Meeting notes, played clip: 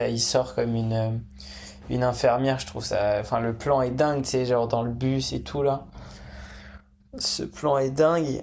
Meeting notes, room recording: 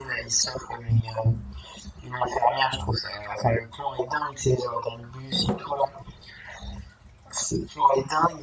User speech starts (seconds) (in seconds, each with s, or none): none